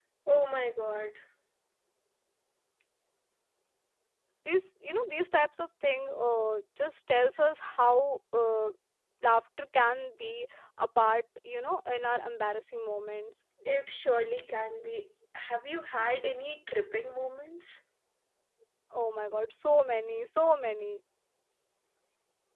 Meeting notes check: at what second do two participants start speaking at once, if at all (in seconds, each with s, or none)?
none